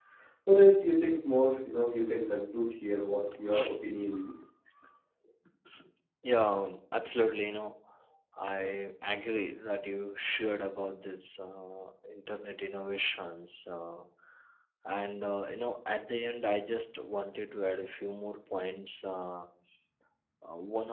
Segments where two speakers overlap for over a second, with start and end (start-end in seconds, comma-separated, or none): none